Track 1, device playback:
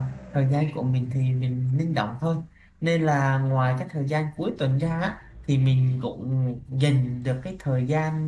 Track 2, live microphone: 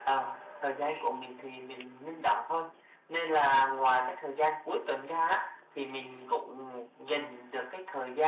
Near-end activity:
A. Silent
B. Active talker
A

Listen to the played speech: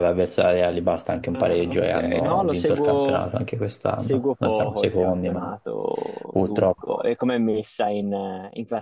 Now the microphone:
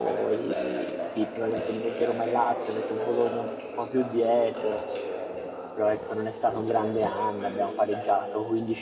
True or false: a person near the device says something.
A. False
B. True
B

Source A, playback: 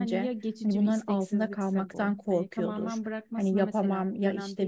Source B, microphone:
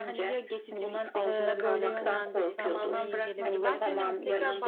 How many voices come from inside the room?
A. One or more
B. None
A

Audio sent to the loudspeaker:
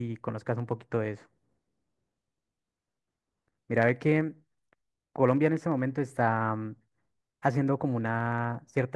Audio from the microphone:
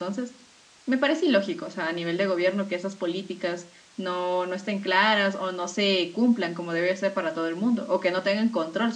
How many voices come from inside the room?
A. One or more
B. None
A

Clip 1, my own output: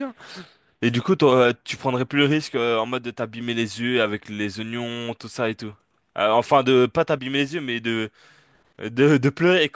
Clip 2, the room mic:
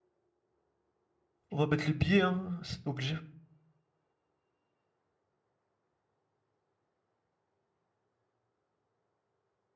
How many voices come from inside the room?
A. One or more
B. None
A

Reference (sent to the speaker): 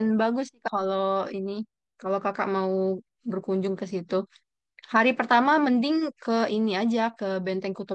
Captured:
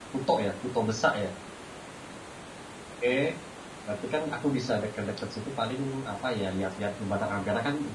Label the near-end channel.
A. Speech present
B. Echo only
A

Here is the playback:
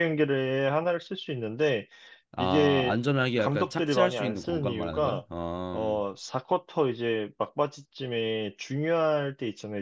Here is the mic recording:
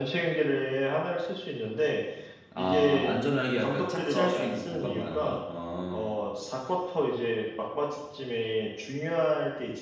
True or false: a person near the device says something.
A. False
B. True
A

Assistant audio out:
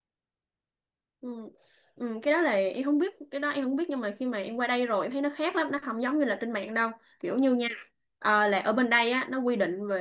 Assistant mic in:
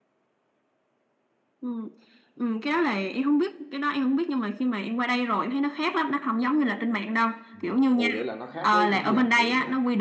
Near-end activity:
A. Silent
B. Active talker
B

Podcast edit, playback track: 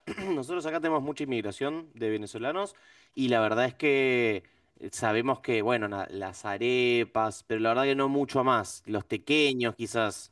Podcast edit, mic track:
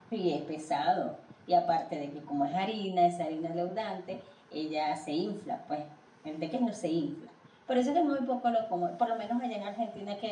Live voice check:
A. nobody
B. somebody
B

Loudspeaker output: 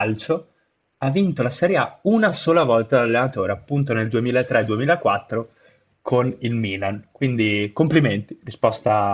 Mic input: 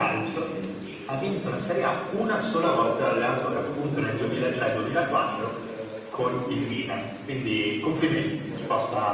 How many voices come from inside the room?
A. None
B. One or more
B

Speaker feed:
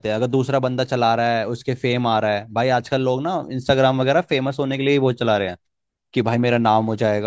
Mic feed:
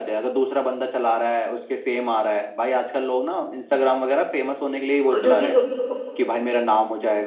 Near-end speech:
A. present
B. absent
A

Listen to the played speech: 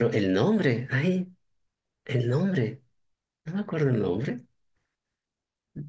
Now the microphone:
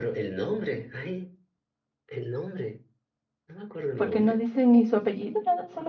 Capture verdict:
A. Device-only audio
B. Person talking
B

